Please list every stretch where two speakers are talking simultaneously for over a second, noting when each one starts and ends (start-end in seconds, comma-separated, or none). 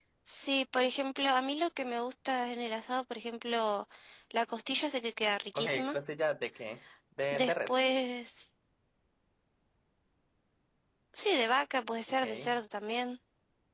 none